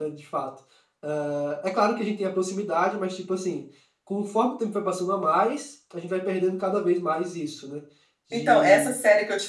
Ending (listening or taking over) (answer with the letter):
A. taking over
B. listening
A